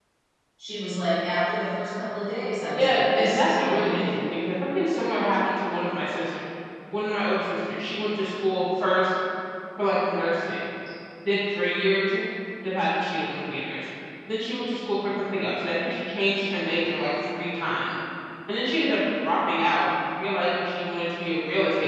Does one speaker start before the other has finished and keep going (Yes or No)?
Yes